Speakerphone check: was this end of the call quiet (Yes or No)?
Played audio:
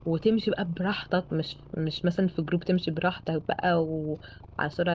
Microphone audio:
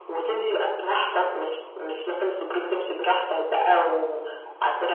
Yes